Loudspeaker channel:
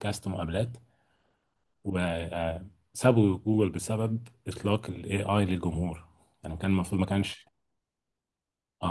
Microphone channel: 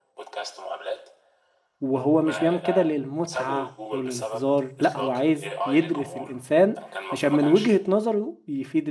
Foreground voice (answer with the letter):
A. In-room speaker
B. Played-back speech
A